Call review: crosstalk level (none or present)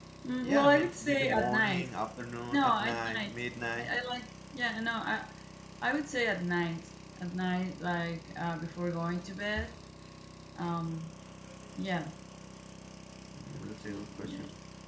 present